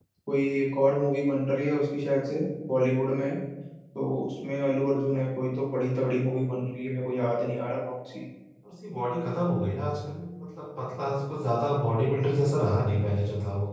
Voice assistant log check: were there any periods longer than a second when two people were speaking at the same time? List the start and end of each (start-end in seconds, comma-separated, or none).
none